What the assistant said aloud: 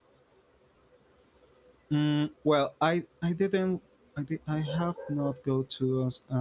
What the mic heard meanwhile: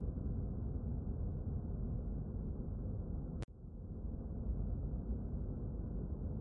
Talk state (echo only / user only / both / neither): neither